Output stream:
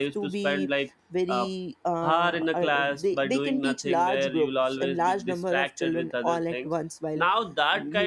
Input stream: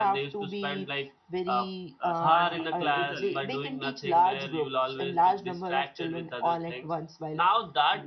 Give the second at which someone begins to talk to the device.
2 s

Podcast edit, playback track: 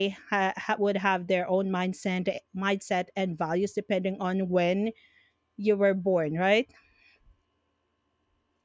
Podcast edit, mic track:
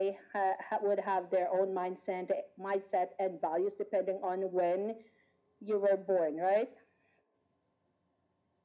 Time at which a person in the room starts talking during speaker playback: none

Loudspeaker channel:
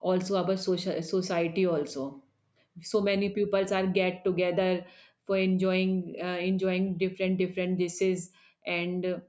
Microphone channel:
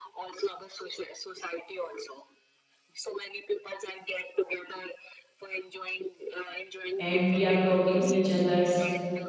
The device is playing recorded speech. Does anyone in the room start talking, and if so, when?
7 s

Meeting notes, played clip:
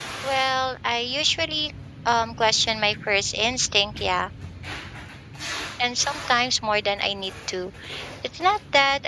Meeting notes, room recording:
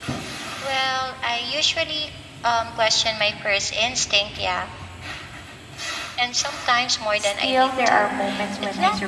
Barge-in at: 7 s

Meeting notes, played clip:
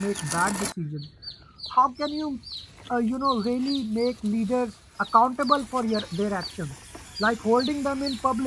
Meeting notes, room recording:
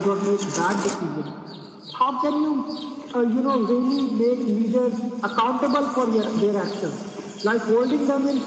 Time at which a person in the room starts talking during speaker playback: none

